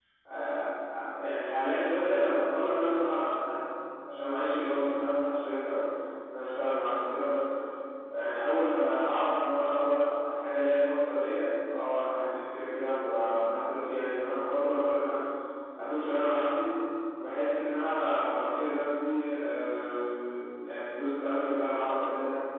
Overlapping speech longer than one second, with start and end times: none

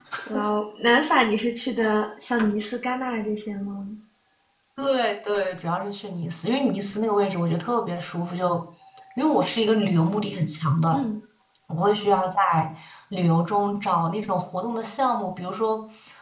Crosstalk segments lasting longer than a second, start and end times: none

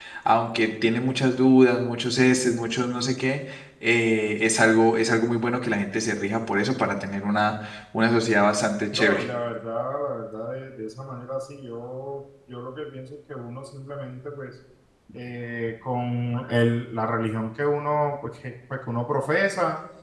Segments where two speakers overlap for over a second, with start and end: none

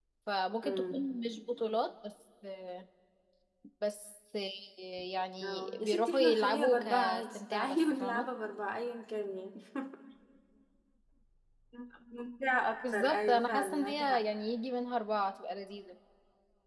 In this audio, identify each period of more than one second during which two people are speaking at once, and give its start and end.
5.4-8.3, 12.9-14.2

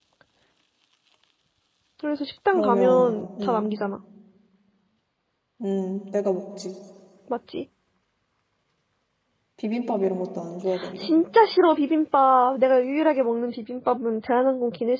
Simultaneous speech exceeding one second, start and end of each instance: 2.5-3.7

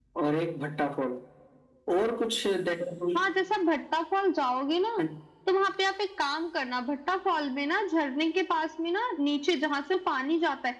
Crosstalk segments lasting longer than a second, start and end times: none

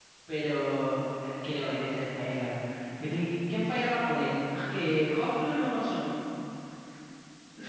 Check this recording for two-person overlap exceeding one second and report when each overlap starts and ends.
none

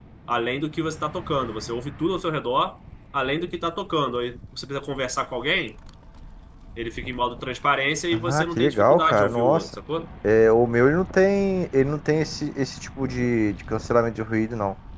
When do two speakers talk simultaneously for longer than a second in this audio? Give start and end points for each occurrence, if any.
8.1-9.7

